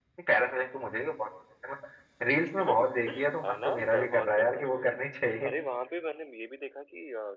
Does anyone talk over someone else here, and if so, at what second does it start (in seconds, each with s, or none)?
2.6 s